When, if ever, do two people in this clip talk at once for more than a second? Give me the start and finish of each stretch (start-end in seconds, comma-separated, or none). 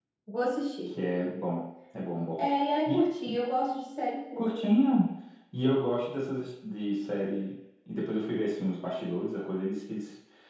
none